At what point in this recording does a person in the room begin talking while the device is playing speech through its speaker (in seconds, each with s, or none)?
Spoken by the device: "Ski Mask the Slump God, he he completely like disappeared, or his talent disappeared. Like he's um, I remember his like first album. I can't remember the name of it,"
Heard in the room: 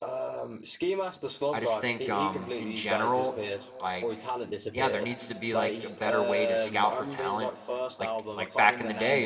1.5 s